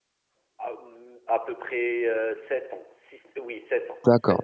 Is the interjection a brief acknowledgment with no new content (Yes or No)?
No